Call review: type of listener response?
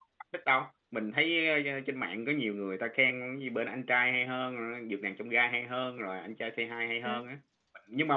listening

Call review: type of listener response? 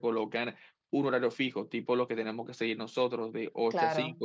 listening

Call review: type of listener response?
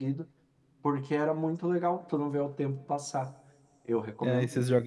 taking over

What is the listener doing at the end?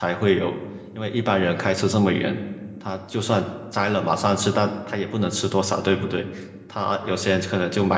listening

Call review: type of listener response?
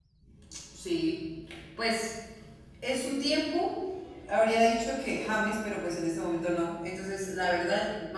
listening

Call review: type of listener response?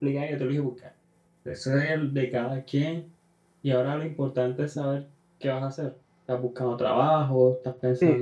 taking over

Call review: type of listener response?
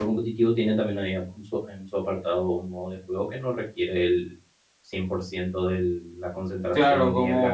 taking over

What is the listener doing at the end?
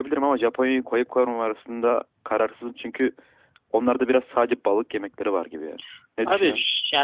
taking over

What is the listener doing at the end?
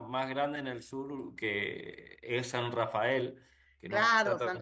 taking over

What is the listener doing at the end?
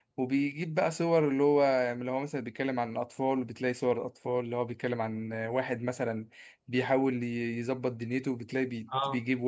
listening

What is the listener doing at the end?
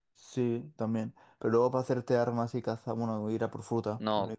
taking over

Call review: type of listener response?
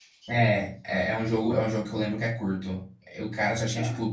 listening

